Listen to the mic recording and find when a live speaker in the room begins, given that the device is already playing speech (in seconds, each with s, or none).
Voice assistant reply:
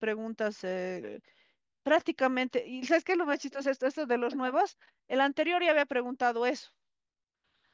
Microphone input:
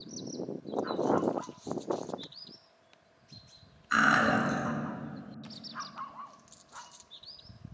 3.9 s